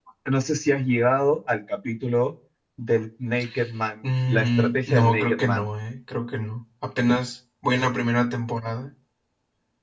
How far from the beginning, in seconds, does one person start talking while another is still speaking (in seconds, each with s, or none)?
4.3 s